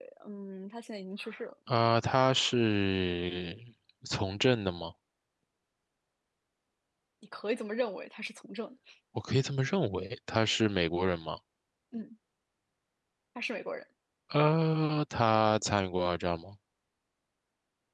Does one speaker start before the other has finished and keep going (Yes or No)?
No